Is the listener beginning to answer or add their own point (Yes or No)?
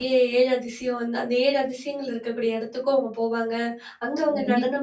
No